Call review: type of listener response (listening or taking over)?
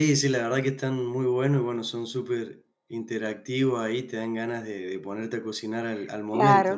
taking over